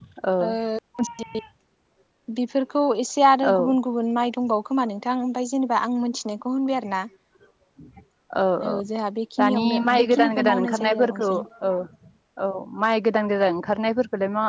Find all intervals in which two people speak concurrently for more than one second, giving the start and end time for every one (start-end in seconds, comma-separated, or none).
9.4-11.3